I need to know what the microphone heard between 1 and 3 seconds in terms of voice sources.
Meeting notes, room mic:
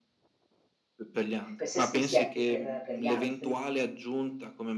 both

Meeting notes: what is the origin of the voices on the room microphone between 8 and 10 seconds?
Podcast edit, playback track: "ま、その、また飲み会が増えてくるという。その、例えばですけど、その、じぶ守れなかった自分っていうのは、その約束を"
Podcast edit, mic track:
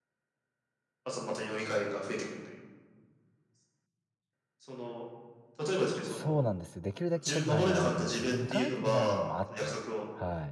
both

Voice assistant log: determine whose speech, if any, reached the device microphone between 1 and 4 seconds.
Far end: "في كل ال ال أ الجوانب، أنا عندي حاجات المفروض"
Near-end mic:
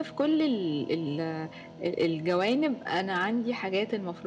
echo only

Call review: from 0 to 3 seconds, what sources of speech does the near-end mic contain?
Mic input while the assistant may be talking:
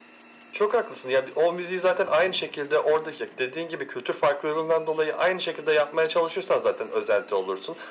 echo only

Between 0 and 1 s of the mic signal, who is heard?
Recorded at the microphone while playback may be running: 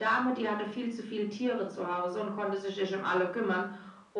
echo only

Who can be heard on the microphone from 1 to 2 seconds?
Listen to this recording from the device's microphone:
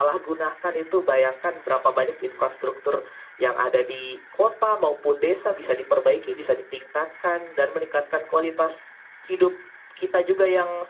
echo only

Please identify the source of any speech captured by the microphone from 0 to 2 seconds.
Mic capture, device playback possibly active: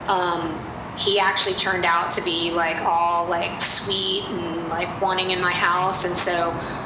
echo only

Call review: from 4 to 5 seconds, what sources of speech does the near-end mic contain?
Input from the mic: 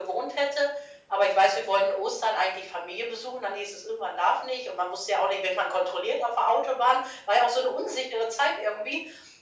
echo only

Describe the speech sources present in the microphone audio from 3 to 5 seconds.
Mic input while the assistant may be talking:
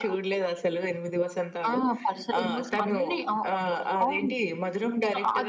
echo only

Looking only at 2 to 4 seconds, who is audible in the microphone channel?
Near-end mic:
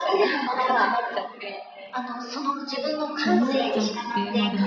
both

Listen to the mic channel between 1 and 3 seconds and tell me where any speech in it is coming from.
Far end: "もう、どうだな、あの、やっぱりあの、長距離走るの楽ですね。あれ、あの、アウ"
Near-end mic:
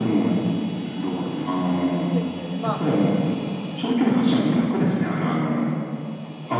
both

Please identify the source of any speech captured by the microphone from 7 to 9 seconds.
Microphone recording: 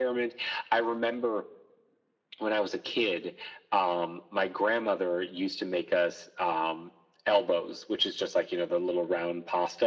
echo only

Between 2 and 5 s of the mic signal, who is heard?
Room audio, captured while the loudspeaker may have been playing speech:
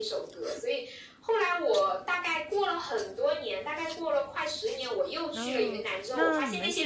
echo only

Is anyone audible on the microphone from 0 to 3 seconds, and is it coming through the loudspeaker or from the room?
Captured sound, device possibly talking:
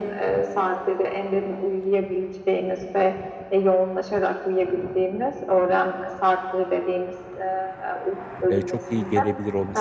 echo only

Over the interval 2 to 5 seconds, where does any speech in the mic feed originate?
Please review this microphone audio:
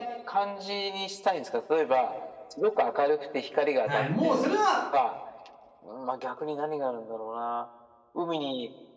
both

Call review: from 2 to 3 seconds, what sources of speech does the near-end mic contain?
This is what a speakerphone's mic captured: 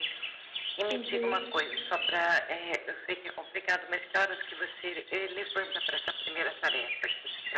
echo only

